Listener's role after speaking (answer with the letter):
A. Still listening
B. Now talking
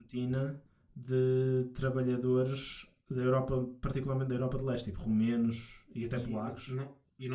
B